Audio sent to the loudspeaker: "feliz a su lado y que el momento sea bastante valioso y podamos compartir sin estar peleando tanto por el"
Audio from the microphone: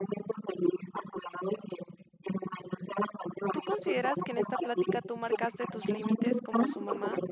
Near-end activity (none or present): present